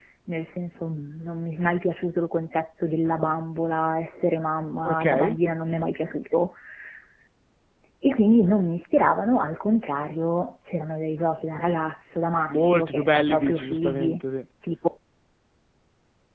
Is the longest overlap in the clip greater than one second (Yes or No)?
Yes